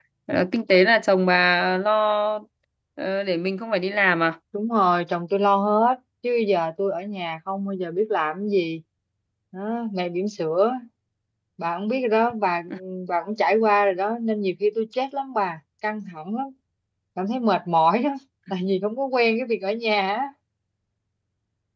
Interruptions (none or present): none